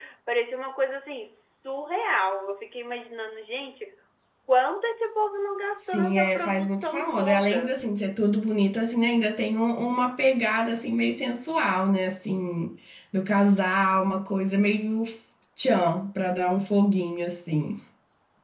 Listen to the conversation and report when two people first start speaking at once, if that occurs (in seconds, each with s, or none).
5.9 s